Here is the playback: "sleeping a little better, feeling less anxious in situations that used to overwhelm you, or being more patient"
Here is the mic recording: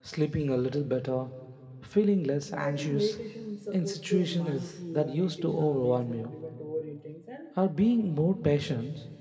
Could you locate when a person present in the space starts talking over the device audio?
2.5 s

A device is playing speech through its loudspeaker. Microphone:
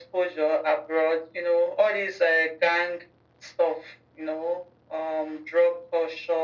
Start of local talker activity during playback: none

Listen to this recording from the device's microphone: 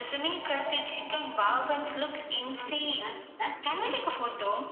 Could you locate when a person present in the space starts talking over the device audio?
2.3 s

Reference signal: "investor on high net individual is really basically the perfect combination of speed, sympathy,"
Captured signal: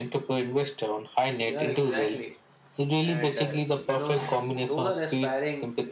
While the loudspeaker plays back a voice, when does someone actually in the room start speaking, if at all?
1.4 s

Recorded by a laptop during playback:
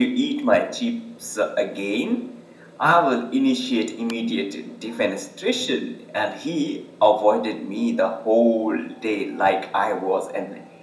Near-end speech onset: none

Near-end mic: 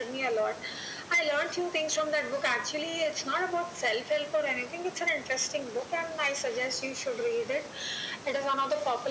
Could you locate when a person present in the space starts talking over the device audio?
none

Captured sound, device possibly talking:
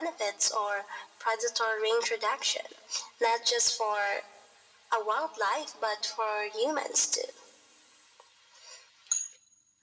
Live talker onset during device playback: none

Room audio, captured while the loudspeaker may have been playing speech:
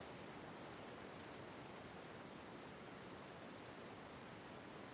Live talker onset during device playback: none

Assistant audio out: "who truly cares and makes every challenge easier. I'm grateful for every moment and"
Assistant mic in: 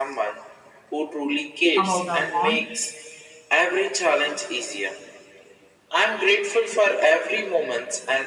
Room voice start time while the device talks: 1.7 s

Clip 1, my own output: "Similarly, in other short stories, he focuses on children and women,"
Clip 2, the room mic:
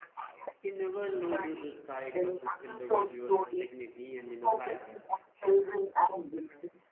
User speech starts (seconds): 0.6 s

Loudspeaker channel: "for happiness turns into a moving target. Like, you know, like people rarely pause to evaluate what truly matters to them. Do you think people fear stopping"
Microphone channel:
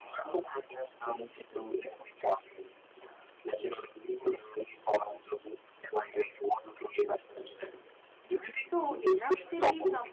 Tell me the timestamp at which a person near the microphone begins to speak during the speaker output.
8.6 s

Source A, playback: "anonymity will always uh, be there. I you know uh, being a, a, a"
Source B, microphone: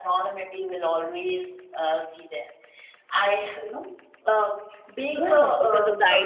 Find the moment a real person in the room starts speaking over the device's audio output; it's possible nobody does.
5.1 s

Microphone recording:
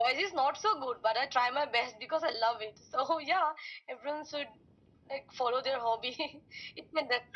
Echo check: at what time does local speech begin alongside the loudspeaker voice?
none

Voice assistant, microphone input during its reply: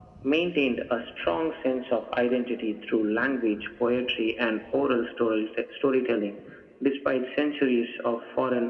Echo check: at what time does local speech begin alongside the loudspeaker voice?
none

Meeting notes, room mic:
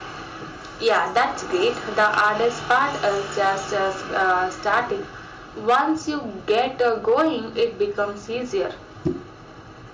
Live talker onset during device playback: none

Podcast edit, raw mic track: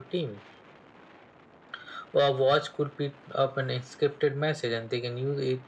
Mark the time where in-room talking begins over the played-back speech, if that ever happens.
none

